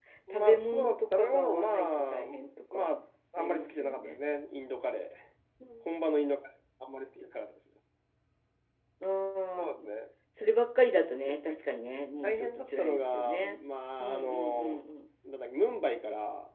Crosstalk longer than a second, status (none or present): present